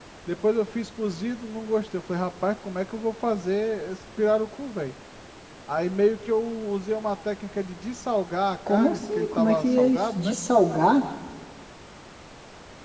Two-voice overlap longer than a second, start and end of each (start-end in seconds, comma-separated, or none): 8.7-10.3